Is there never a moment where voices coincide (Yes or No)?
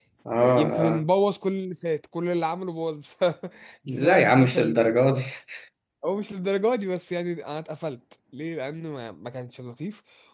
No